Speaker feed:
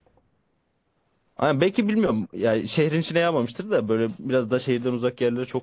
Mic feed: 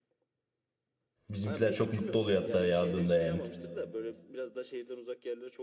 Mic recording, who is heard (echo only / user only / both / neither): both